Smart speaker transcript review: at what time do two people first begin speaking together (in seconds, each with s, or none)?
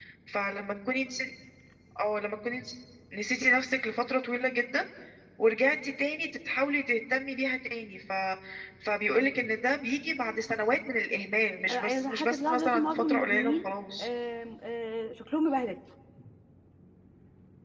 11.7 s